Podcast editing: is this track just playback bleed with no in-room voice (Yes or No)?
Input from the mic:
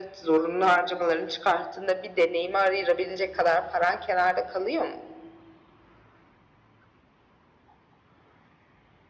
Yes